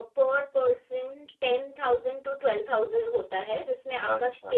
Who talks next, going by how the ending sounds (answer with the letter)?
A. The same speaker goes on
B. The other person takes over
A